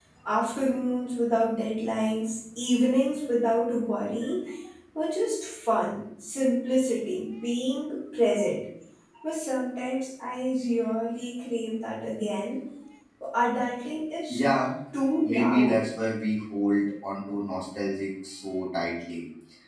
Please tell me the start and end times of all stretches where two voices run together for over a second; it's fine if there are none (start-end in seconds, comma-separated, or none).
none